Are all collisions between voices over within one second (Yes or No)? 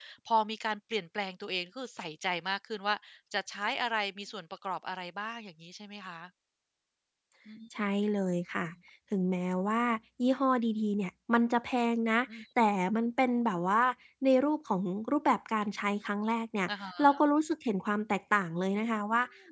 Yes